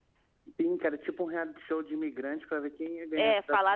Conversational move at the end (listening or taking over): taking over